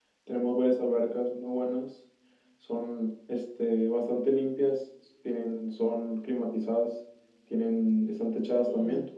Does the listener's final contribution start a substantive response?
Yes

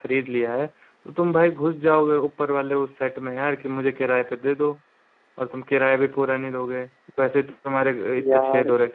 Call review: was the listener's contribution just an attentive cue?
No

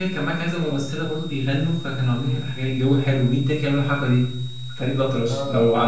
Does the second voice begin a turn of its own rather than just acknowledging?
Yes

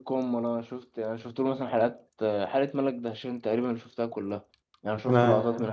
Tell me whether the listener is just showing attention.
Yes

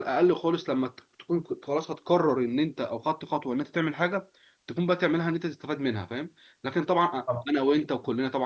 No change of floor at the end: Yes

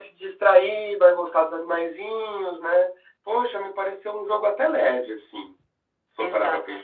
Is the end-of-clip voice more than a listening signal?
Yes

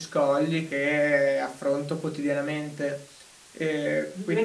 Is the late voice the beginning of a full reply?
Yes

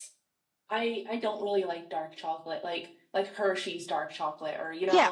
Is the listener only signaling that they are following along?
No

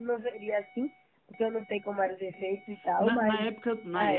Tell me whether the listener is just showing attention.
No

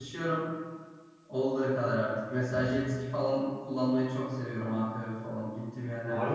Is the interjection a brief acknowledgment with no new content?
No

